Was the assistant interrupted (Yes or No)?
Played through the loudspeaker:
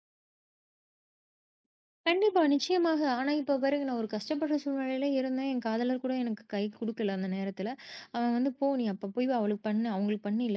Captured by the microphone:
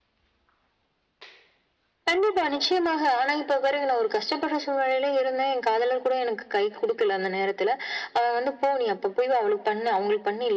No